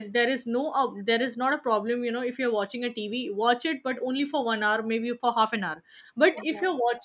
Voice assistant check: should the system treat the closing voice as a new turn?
No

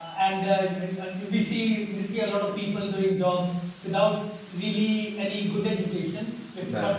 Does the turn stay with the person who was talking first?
Yes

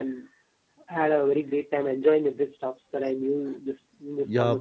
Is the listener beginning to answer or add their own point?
Yes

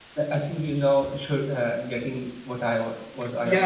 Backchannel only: No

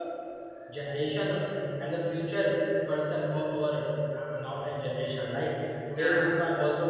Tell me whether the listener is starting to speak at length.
No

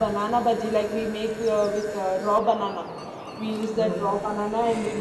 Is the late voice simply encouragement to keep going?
Yes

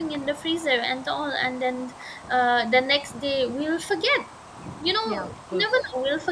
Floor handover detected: No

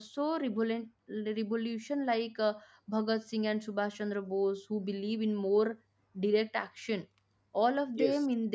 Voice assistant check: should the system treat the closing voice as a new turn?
No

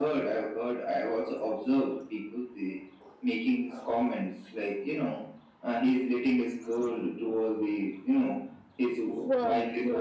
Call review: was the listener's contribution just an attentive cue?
Yes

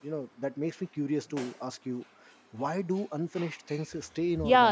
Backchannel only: No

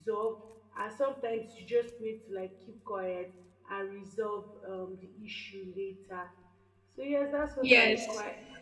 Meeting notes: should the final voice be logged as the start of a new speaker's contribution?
No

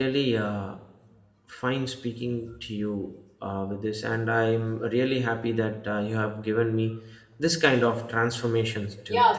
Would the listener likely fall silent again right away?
No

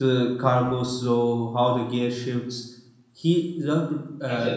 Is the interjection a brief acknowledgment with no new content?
Yes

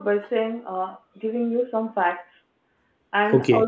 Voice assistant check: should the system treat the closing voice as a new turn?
No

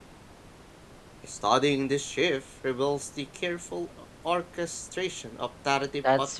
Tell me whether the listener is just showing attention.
No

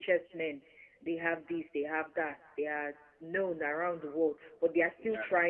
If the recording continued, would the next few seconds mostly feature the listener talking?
No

